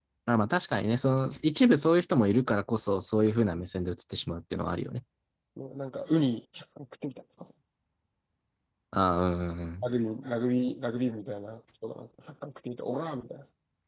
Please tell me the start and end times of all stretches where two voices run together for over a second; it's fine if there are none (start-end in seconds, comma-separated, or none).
none